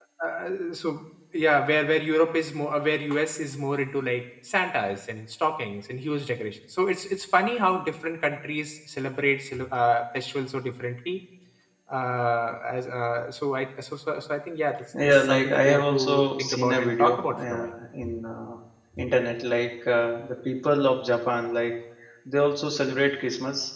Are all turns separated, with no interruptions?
No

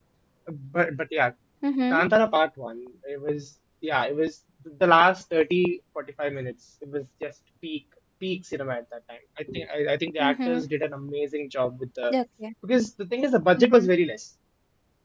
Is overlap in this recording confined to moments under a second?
Yes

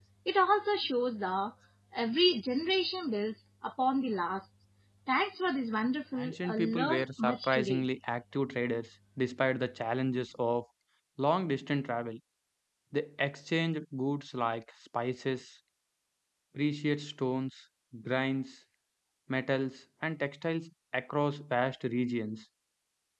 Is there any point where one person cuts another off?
Yes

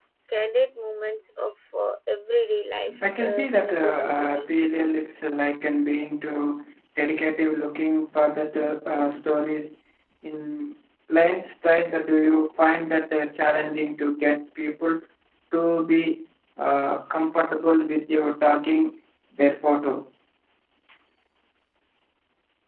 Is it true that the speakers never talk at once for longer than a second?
No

